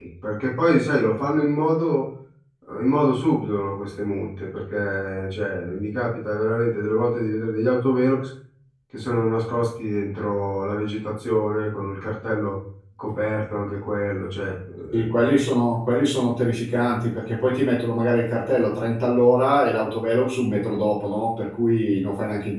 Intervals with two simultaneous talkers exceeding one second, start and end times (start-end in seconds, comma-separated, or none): none